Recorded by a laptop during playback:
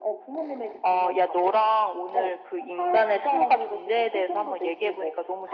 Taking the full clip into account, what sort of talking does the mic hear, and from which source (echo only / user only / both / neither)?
echo only